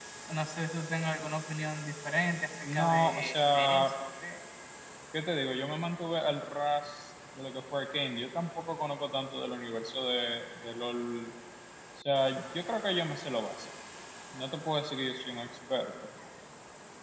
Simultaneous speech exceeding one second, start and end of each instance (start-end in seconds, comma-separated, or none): 2.6-3.9